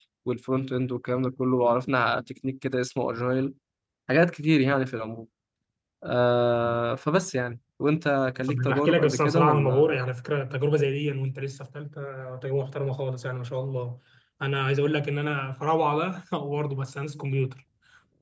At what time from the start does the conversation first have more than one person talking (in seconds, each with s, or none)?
8.5 s